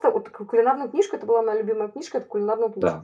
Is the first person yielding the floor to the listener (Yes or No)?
Yes